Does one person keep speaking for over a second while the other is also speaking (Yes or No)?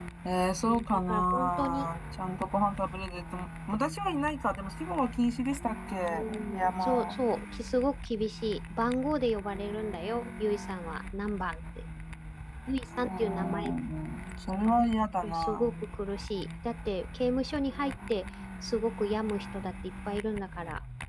Yes